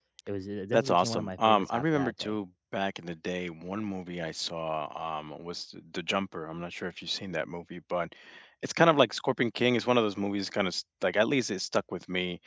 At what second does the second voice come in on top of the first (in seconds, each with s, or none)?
0.7 s